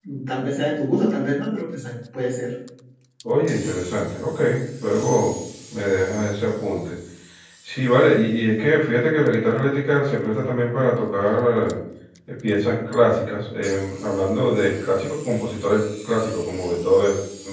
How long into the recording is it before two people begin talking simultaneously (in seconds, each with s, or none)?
none